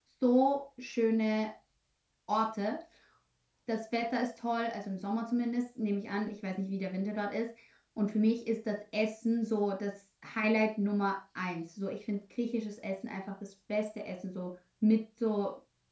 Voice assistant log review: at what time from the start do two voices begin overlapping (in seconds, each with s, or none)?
none